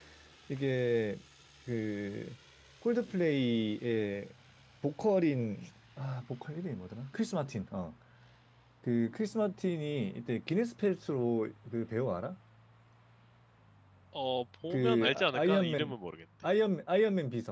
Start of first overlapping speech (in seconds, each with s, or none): 14.7 s